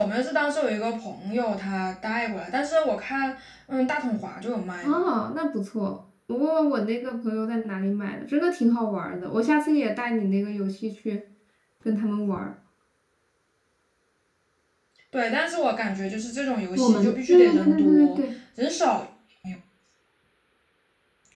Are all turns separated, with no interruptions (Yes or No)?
No